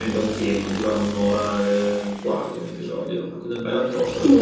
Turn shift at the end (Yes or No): Yes